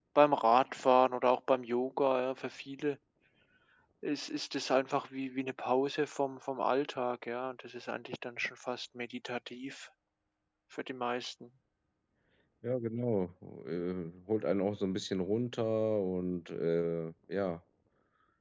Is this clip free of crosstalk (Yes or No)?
Yes